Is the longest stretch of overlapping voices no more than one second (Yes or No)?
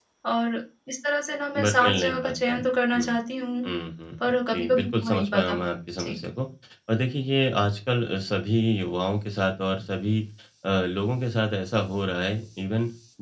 No